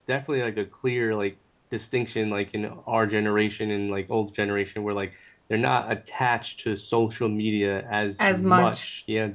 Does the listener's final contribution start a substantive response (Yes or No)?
No